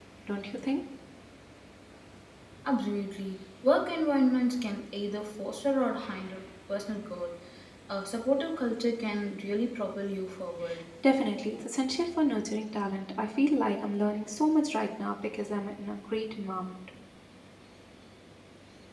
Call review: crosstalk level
none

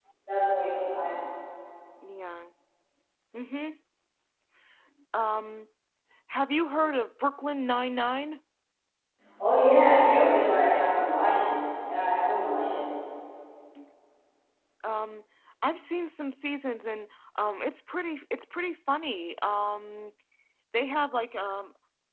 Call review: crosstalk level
none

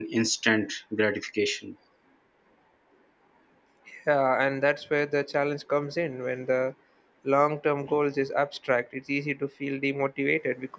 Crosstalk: none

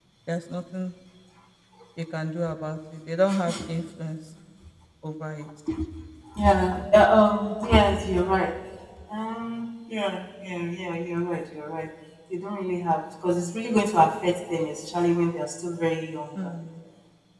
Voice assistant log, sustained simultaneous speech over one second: none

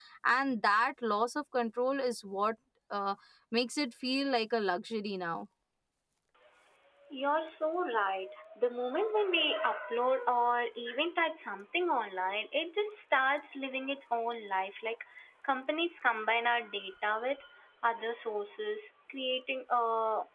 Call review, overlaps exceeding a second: none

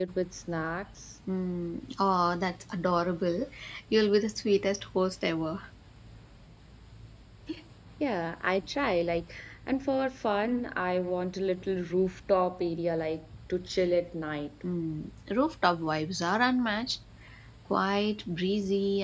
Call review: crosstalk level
none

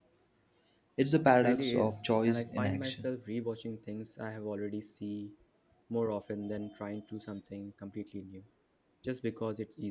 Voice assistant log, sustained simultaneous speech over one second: present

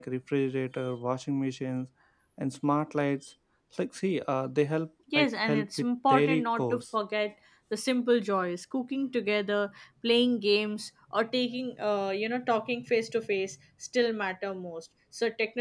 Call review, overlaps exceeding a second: present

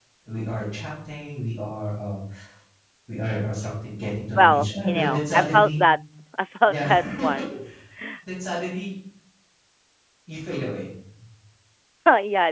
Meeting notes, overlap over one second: present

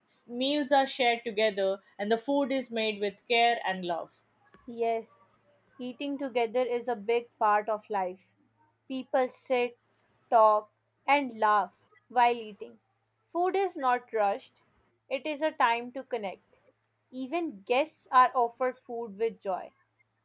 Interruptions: none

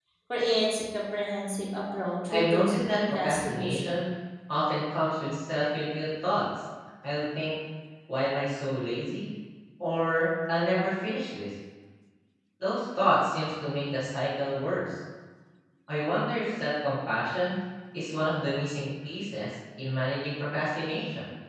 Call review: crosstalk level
present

